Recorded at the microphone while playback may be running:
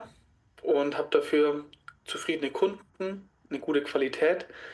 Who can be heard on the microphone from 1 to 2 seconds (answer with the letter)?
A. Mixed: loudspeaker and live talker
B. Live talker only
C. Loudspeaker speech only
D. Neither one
C